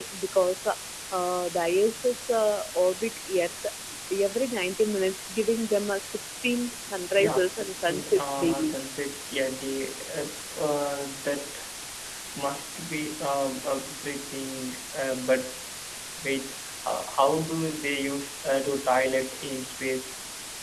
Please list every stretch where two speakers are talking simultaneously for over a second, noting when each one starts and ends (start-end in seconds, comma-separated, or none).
7.2-8.8